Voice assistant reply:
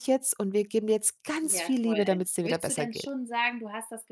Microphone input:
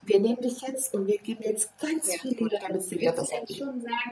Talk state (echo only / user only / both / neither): echo only